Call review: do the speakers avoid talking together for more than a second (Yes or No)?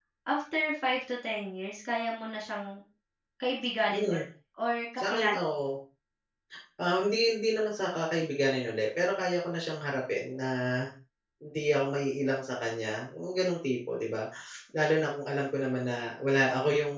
Yes